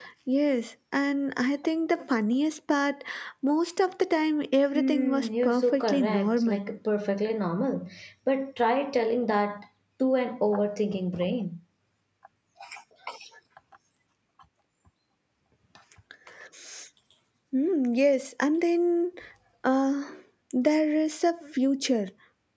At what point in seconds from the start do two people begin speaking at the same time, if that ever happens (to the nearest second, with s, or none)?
5 s